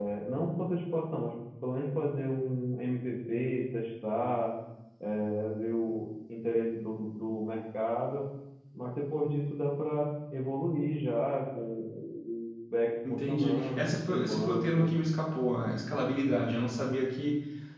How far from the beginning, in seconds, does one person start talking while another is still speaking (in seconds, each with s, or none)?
13.0 s